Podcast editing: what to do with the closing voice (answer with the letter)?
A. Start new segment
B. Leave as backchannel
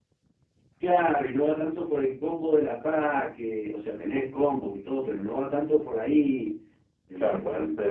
A